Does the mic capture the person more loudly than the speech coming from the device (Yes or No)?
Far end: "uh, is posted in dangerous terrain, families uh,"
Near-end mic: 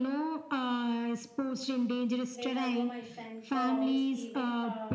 No